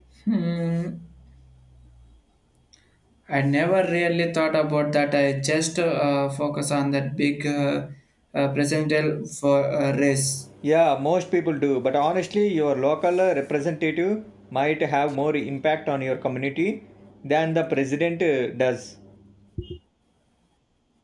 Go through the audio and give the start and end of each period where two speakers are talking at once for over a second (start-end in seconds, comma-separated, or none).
none